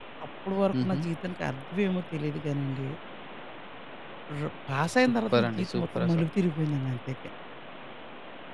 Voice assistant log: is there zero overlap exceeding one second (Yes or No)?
No